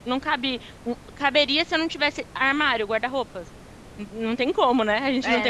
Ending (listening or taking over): taking over